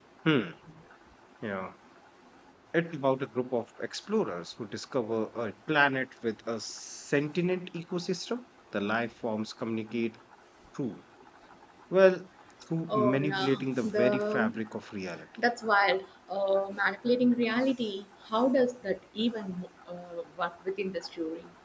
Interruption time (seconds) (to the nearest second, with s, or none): 13 s